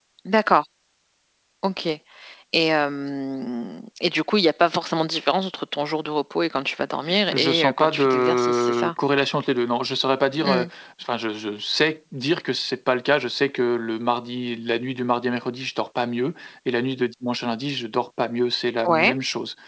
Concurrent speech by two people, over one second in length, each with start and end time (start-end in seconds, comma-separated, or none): 7.1-8.9